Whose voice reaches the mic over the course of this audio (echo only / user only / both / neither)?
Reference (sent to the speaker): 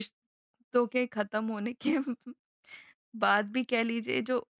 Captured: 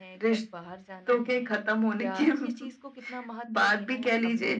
both